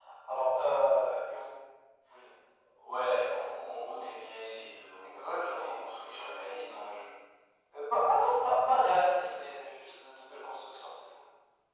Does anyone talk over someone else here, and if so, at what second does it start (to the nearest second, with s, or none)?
5 s